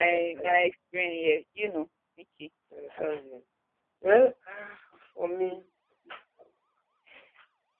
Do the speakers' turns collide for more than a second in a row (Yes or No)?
No